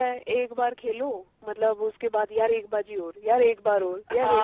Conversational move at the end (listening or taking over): taking over